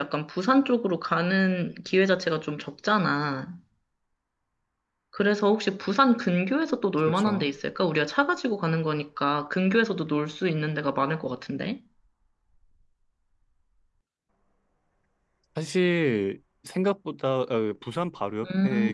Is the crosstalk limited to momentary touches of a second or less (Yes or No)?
Yes